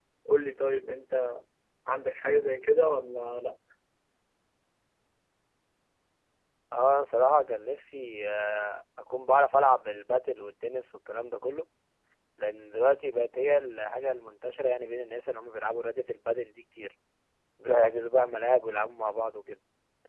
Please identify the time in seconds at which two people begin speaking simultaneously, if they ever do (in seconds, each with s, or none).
none